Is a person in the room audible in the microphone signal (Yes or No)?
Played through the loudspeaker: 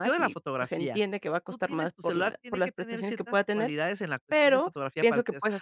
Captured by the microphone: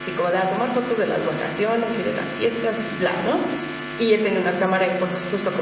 Yes